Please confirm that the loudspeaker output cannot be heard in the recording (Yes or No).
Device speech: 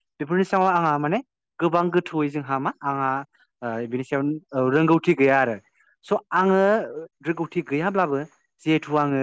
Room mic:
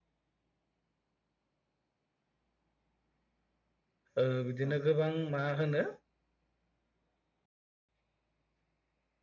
Yes